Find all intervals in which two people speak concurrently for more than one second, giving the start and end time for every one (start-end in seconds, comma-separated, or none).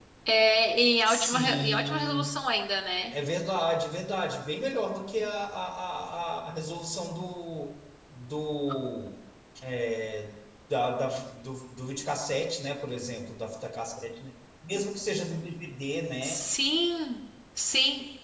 1.1-2.3